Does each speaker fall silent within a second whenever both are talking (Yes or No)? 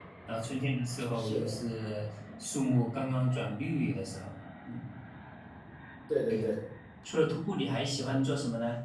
Yes